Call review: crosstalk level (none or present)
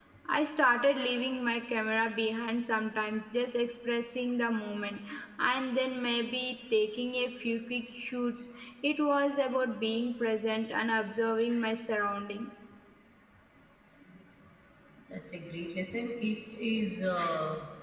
none